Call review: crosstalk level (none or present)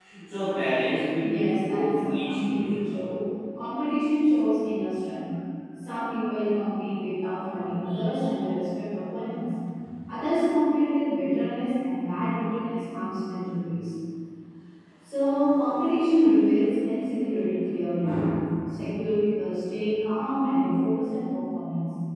present